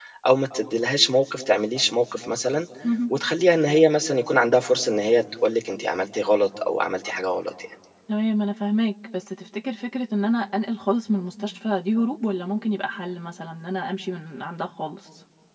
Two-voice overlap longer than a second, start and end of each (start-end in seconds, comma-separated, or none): none